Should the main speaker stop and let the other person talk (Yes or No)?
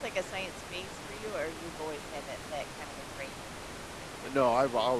Yes